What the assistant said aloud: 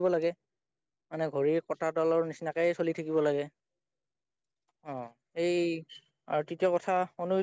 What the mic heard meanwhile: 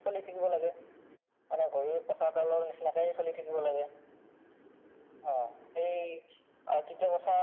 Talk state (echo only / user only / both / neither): echo only